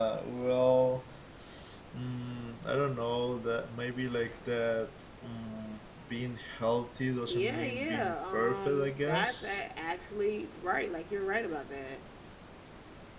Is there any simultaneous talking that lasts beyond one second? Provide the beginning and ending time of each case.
7.3-9.6

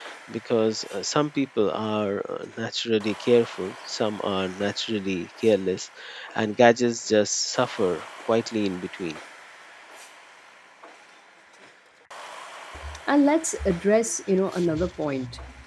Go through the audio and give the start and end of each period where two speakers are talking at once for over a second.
none

